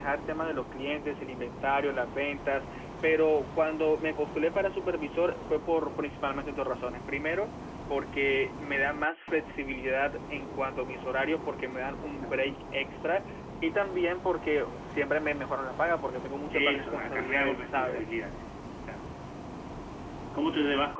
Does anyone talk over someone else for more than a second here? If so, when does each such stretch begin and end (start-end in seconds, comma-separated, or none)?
16.5-18.1